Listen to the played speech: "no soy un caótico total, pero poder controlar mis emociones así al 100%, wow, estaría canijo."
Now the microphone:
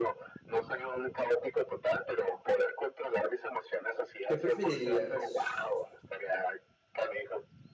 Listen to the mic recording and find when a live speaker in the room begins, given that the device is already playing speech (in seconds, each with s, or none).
4.2 s